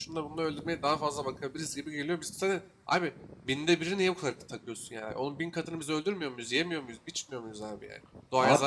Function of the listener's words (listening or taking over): listening